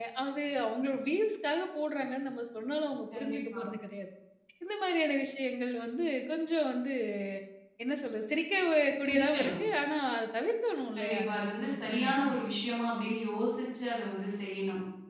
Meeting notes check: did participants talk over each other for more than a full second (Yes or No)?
Yes